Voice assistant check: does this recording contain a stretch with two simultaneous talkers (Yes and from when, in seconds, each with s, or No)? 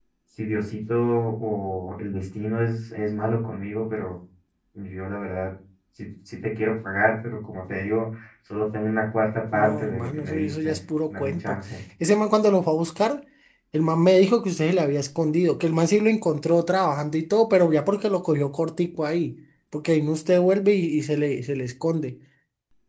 Yes, from 9.5 s